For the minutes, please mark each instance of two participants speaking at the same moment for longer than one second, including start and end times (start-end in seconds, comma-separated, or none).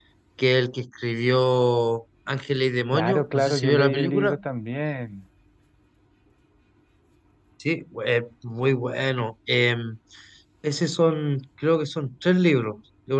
2.9-4.4